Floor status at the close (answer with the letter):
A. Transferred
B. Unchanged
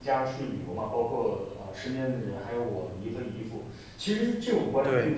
B